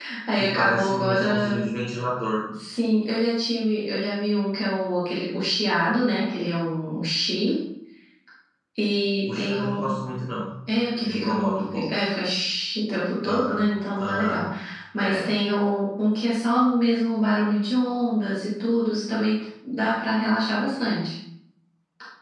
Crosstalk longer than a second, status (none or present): present